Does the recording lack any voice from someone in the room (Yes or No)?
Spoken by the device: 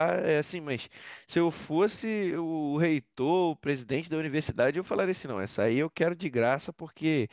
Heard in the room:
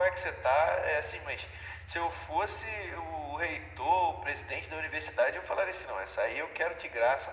Yes